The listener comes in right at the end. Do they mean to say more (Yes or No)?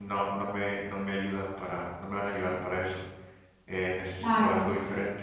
No